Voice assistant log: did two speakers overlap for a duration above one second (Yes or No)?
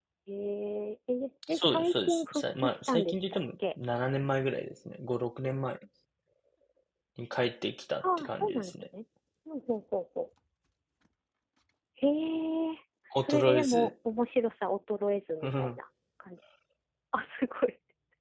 Yes